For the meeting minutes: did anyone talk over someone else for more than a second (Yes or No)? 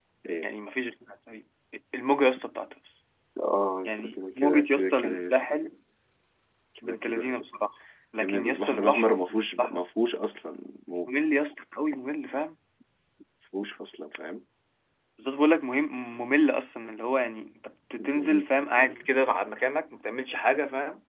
Yes